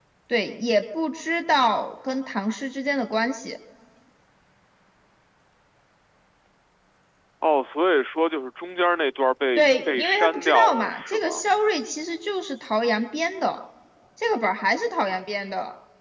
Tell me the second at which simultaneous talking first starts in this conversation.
9.6 s

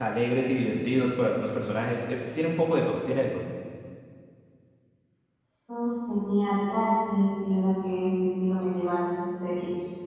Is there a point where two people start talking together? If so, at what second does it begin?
none

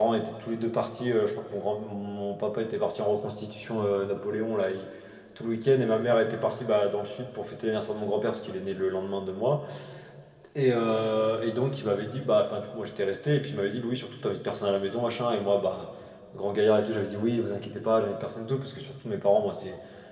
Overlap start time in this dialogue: none

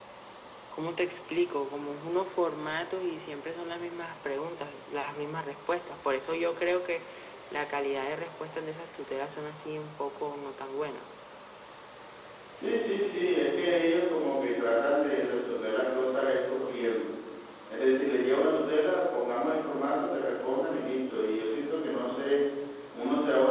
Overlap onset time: none

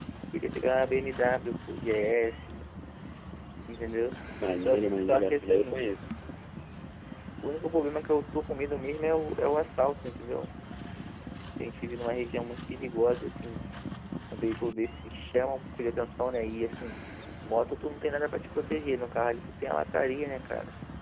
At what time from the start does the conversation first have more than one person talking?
4.6 s

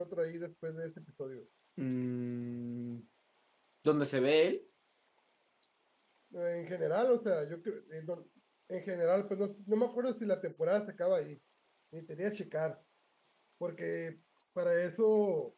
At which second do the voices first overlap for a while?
none

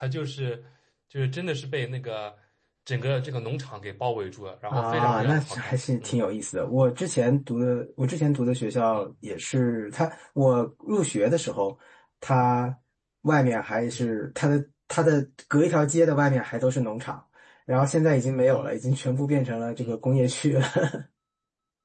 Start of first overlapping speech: 4.7 s

